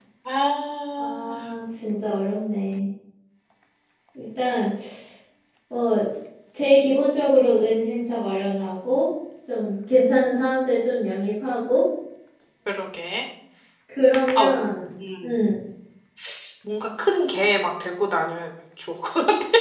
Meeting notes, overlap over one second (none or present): none